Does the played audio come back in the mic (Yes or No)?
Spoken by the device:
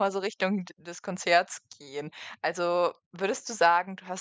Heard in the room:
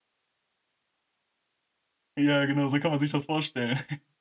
No